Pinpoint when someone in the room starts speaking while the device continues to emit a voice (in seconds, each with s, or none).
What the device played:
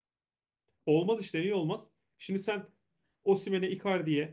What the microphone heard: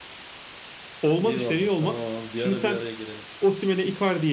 1.2 s